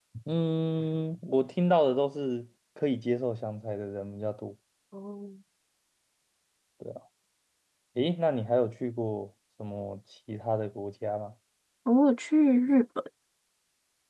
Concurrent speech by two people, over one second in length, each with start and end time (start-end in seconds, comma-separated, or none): none